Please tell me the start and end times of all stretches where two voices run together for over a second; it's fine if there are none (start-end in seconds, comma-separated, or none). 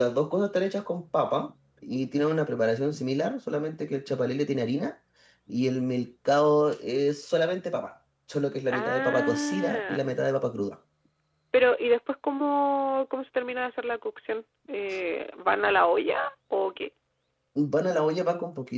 8.7-10.0